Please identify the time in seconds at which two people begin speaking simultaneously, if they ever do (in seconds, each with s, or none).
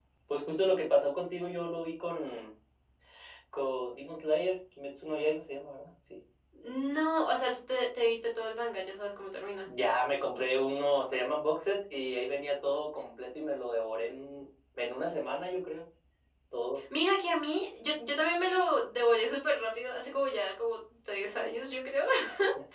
none